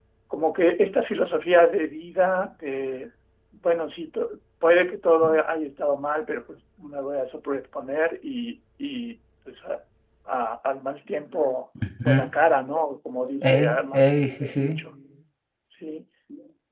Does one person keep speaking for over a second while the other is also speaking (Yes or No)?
Yes